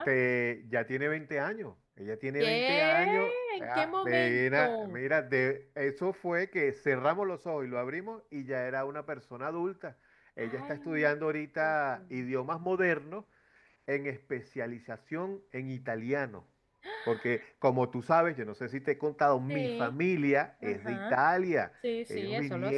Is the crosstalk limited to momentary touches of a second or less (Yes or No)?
No